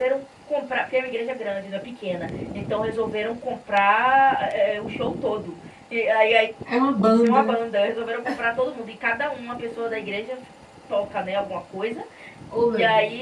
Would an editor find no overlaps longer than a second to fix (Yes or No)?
Yes